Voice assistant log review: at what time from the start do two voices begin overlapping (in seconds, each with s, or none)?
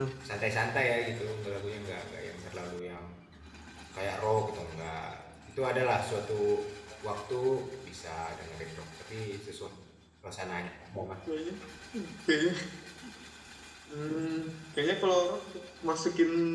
none